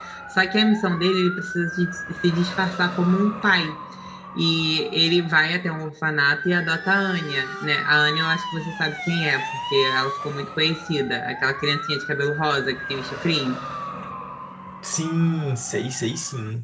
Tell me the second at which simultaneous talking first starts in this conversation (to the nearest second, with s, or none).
none